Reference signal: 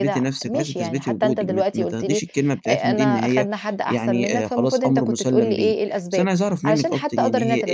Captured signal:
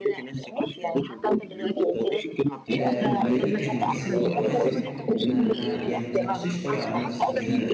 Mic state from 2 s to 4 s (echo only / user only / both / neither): both